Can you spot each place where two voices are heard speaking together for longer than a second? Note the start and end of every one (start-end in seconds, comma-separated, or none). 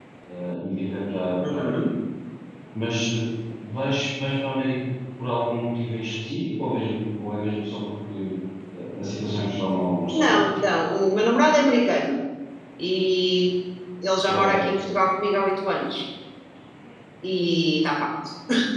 none